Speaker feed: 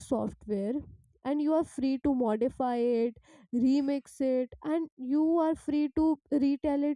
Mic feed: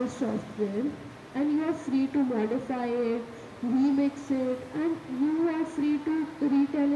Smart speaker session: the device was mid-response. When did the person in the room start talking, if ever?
none

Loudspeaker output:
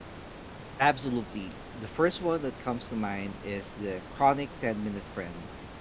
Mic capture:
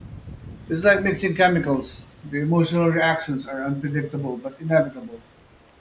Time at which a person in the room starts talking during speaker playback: 0.7 s

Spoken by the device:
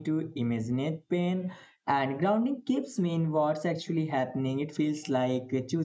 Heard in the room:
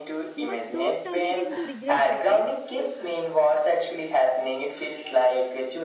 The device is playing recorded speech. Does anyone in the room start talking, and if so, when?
0.3 s

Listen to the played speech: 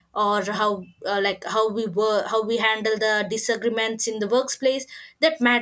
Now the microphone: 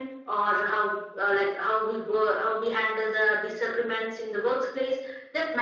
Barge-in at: none

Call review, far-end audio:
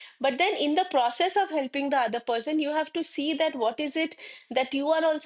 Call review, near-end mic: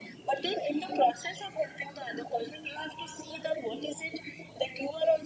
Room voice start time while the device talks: none

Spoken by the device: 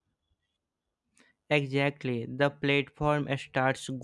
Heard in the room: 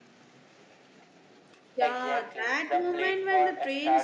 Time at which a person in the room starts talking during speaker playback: 1.8 s

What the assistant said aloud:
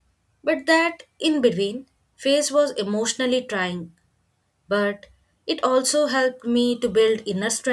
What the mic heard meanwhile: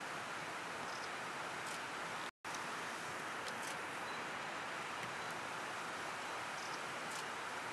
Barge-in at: none

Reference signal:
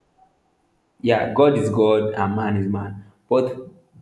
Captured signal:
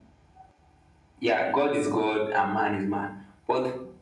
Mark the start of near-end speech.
none

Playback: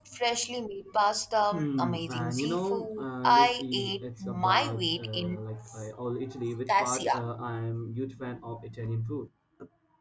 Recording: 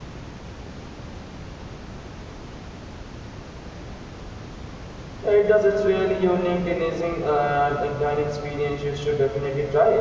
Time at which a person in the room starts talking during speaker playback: 5.2 s

